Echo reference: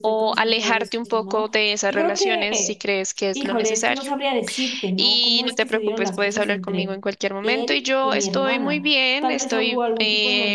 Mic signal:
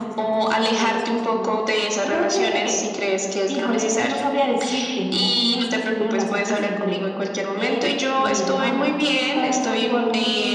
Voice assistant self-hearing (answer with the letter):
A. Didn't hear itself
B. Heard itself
B